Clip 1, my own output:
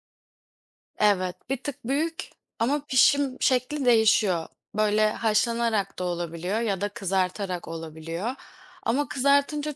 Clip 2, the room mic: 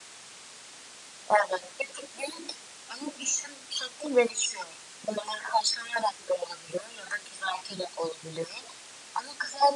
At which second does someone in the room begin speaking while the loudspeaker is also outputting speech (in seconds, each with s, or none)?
none